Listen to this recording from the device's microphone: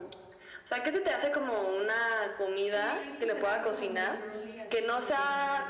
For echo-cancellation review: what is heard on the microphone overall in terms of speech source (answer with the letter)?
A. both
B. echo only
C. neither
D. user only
A